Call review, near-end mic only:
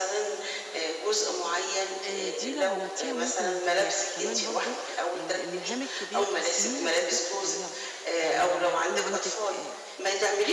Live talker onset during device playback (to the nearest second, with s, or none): 2 s